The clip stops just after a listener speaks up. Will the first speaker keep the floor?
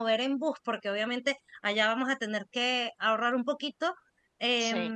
Yes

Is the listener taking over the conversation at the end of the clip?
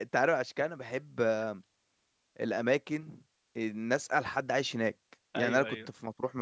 No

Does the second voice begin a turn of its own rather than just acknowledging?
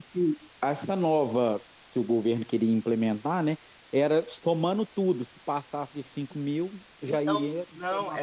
Yes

